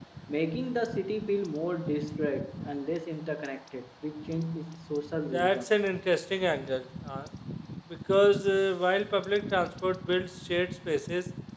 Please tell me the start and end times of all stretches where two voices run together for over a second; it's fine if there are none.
none

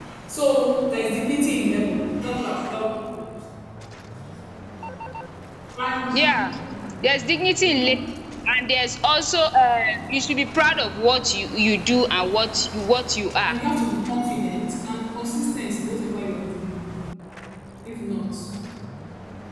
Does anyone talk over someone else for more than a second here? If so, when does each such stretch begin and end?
none

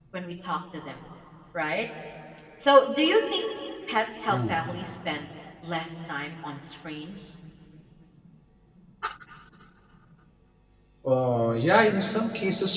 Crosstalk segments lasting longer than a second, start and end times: none

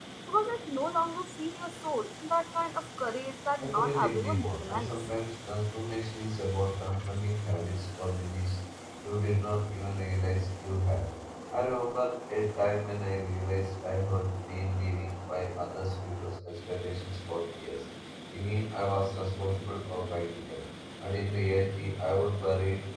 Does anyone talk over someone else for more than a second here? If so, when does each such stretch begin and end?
3.6-5.0

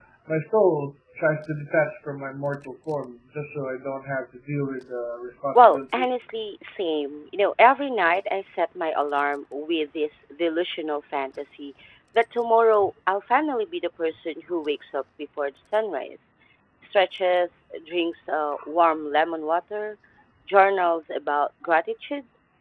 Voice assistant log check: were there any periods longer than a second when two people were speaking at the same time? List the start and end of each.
none

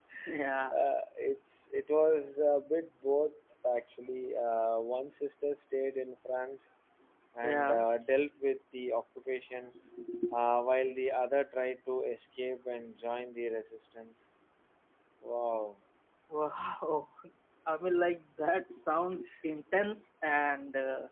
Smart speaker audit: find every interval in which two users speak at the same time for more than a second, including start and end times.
none

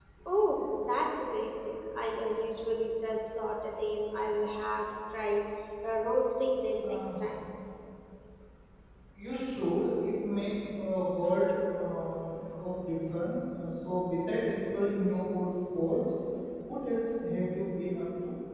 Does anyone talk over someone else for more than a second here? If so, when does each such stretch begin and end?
none

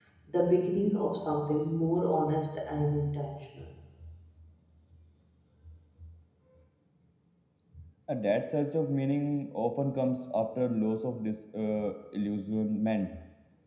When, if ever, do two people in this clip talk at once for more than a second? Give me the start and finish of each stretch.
none

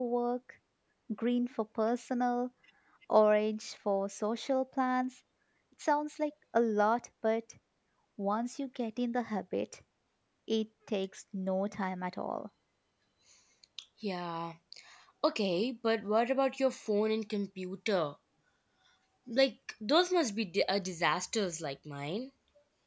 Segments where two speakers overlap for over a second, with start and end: none

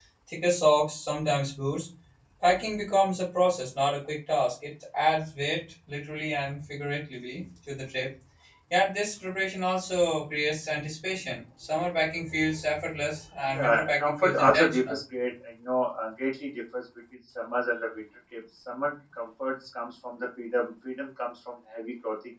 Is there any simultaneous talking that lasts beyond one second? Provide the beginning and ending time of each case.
13.5-15.0

